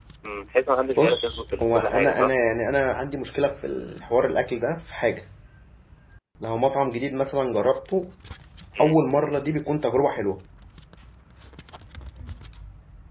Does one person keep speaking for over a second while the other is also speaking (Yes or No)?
Yes